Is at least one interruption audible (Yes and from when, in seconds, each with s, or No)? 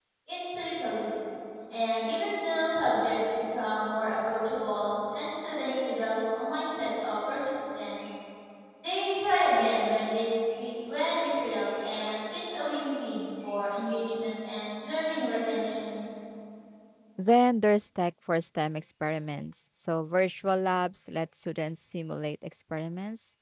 No